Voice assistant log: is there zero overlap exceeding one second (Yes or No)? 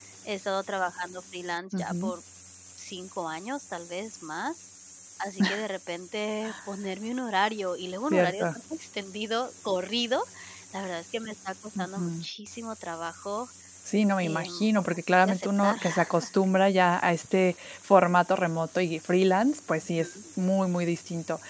No